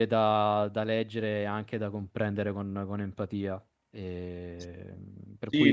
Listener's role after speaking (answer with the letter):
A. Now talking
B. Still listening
A